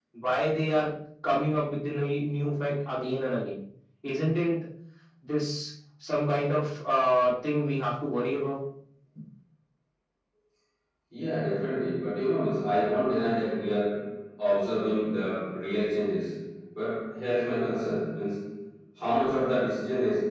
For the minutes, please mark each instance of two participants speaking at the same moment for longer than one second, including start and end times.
none

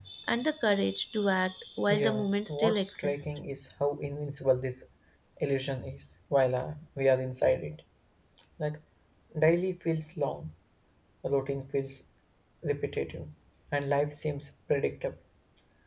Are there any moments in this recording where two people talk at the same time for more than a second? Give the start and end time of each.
1.9-3.3

